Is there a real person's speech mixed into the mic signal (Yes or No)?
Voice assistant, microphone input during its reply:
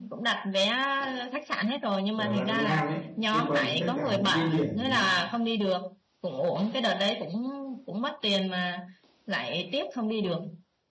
Yes